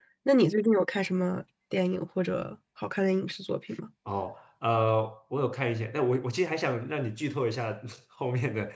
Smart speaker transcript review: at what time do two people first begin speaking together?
none

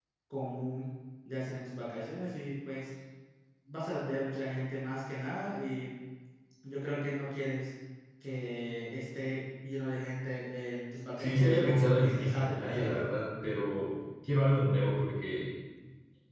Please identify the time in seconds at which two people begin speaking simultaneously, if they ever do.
11.2 s

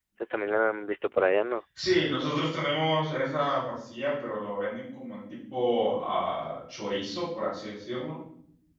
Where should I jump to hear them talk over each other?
none

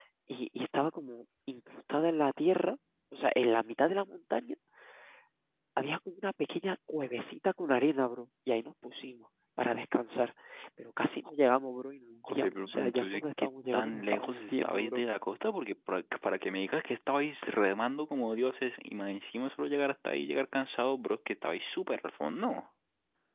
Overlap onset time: 12.2 s

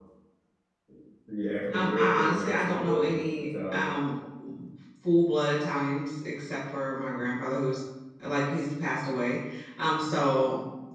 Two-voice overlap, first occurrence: 1.7 s

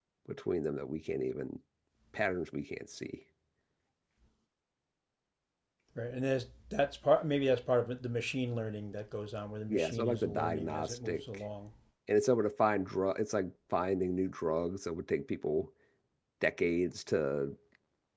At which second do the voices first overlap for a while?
9.7 s

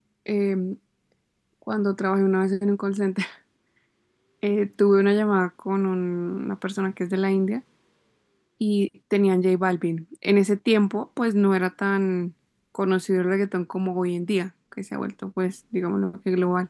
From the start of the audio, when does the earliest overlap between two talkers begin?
none

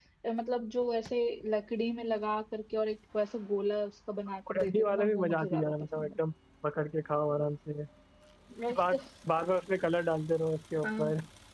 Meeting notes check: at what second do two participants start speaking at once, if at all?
4.5 s

